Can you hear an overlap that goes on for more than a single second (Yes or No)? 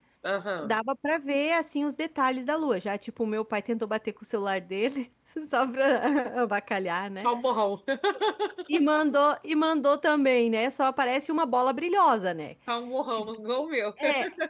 No